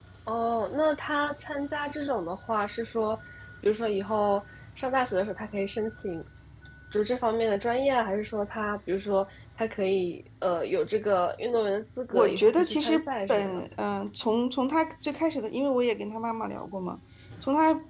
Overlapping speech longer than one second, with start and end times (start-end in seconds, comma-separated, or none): 12.1-13.6